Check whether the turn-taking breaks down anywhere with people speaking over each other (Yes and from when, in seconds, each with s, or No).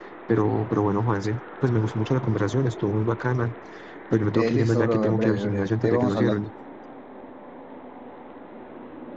Yes, from 4.3 s